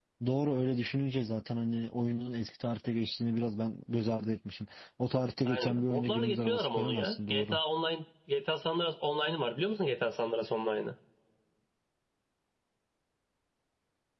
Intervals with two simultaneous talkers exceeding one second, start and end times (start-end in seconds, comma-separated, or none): 5.5-7.6